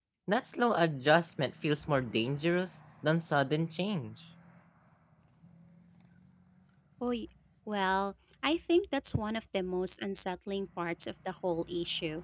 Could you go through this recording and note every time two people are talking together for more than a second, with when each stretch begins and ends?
none

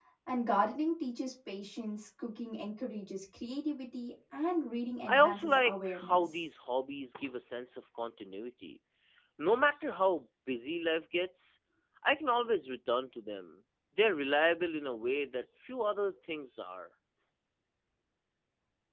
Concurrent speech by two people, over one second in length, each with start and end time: 5.1-6.3

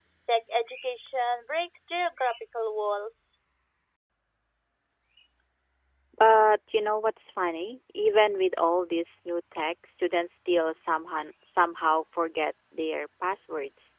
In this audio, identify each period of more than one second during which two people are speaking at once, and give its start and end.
none

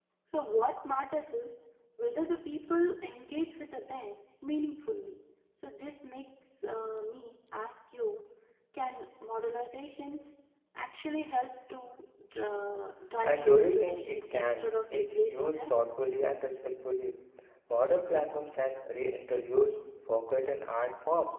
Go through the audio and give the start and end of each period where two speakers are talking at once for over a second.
13.2-15.7

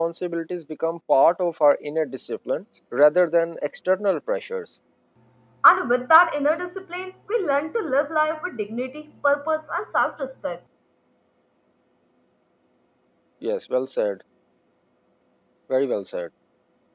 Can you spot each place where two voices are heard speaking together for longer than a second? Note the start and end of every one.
none

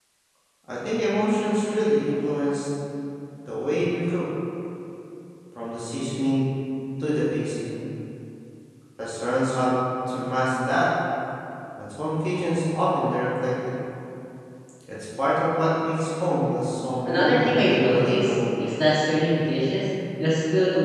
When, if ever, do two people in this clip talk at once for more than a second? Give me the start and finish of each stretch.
17.1-18.3

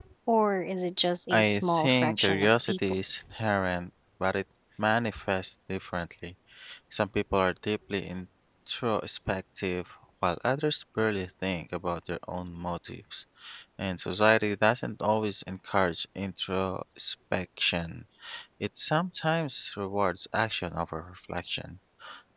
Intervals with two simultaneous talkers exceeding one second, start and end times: 1.3-2.8

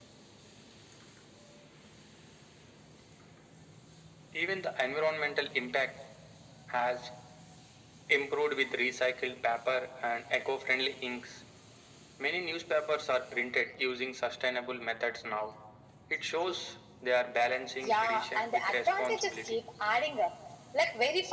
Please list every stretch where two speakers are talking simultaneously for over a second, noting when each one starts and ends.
17.8-19.6

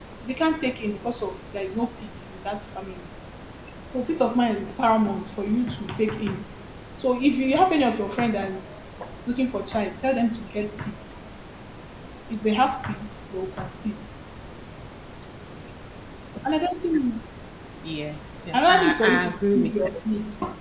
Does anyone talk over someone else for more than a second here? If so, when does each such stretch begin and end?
18.5-19.8

